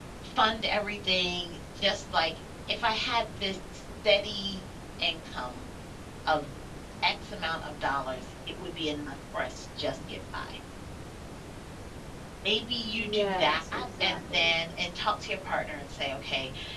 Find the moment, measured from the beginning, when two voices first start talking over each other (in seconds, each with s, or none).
12.9 s